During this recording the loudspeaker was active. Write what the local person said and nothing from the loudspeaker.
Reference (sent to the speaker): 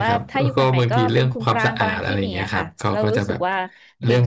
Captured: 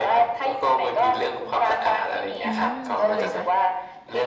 อืมเพราะอะไรคะ

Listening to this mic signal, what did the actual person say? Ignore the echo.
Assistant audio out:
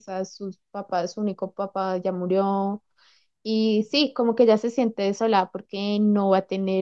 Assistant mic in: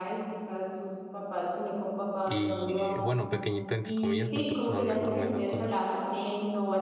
y bueno, pequeñito entre comillas porque pues, son enormes esas cosas.

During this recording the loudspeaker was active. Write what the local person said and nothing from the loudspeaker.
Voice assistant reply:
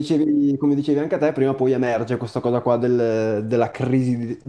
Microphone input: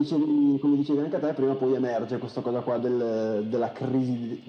none

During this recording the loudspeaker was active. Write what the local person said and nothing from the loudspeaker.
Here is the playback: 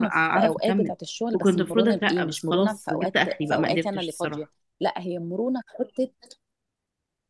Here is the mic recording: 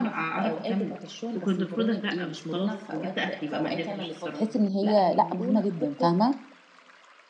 تحس ان هي لا مهمه جدا فاهمه

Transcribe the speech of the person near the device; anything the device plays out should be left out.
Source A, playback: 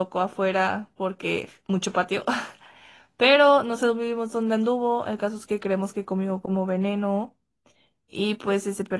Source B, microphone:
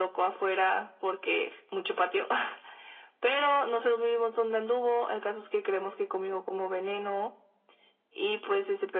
none

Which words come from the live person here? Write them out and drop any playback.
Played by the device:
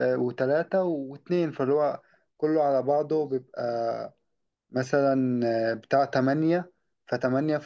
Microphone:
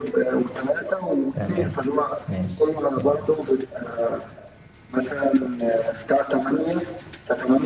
تمام ماشي يلا

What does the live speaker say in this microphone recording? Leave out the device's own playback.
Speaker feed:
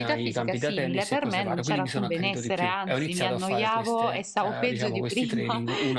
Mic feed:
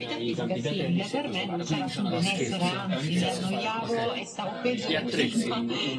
No, scherzo, scherzo. Ok. Gli attrezzi.

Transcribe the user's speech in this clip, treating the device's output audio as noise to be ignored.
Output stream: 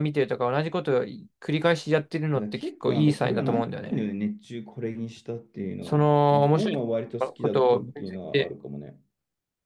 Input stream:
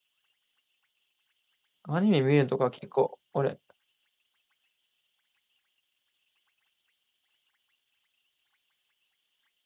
アニメ見るのとか結構俺、

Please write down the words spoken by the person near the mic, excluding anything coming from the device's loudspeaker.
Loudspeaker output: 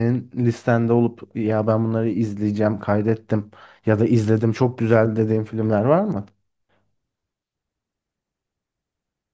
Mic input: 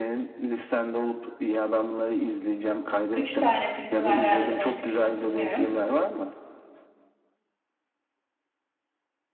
Üç tane filmi var herhalde başka çıkmadı bilmiyorum.

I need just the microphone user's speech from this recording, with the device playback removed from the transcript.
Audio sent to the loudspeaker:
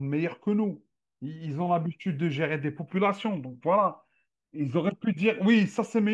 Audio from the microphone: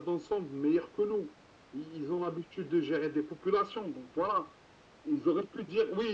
none

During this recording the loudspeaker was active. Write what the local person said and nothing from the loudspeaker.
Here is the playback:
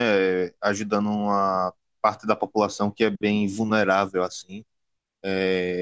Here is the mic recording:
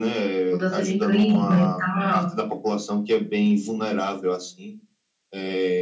Mudança de clima e tal.

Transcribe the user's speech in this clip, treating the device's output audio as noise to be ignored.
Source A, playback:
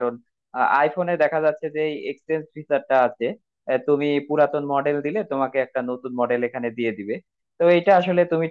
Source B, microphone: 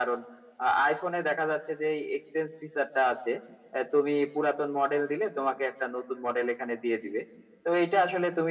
none

